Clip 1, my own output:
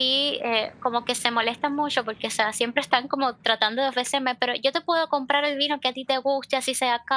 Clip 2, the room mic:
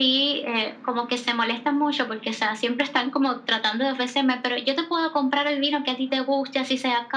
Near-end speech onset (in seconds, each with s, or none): none